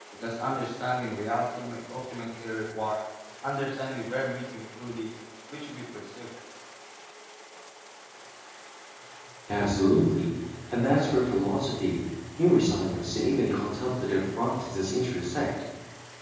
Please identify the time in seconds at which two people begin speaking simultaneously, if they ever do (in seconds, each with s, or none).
none